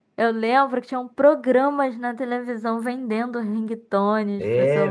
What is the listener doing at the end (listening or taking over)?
taking over